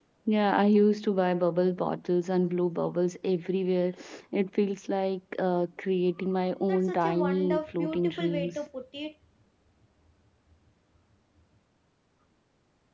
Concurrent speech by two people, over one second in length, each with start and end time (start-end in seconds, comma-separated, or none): 6.7-8.6